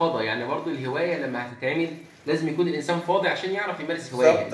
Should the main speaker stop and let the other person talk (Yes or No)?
Yes